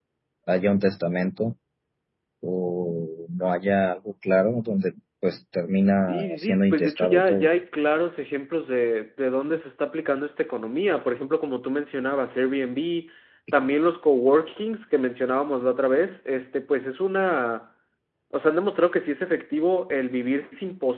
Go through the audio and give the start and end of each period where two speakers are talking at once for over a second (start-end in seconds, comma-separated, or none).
6.1-7.5